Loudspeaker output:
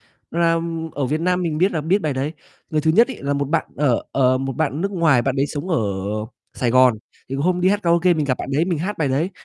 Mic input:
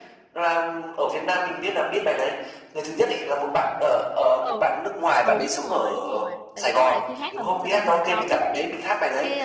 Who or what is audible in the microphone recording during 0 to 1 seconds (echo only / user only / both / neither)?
echo only